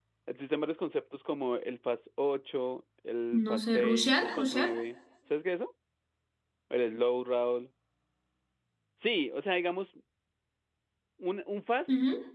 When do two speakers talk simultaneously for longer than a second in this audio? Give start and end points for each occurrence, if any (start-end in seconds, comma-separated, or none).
3.5-4.7